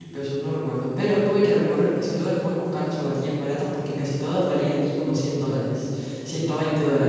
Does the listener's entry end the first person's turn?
No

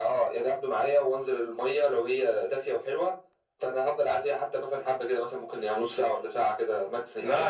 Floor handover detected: Yes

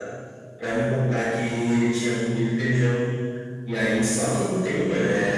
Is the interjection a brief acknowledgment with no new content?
Yes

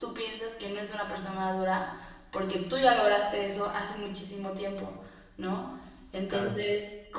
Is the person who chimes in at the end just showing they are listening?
Yes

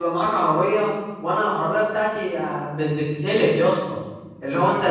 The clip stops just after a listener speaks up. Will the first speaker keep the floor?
Yes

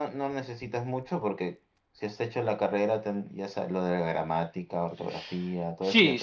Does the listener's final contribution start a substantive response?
Yes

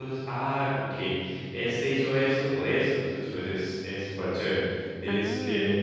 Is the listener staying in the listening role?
No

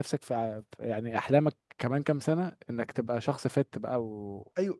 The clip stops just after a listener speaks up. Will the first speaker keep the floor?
No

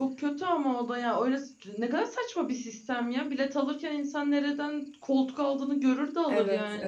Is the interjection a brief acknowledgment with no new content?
No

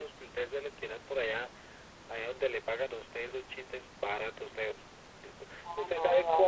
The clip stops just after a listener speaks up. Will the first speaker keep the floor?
Yes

